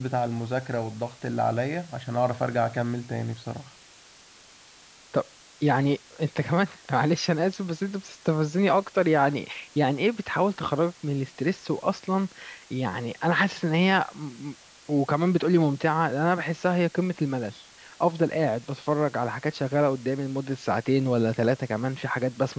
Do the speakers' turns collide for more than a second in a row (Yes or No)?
No